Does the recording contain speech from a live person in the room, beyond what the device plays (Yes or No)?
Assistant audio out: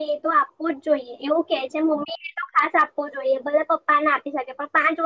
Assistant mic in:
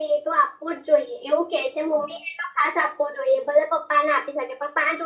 No